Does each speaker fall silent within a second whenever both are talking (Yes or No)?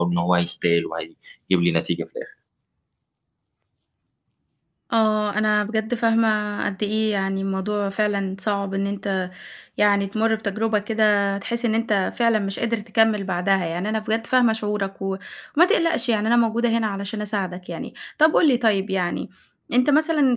Yes